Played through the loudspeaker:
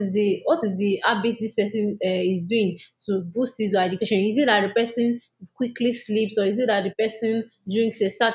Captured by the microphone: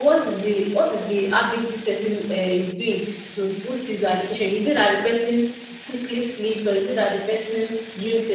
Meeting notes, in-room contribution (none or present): none